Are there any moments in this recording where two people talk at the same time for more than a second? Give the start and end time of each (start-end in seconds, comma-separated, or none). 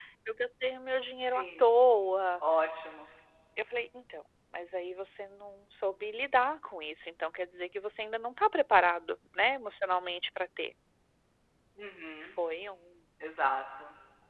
none